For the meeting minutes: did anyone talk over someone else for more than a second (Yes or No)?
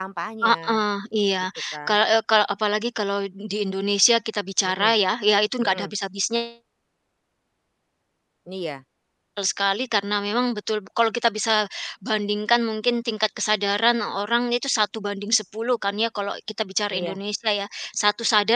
No